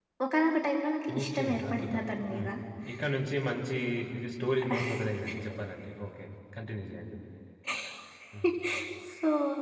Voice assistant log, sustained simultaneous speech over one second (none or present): present